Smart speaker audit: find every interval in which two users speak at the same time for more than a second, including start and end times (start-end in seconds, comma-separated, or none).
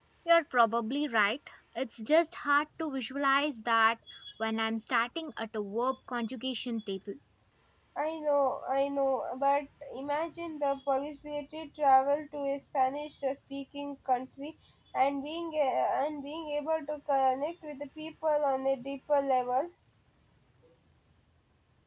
none